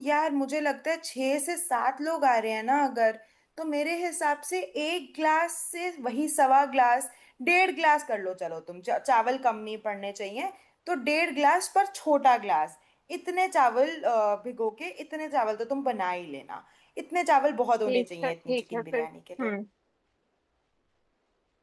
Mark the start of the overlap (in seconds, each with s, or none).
17.9 s